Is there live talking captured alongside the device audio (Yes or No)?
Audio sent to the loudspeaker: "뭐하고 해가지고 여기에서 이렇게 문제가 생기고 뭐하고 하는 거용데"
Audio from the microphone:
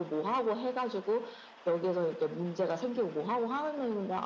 No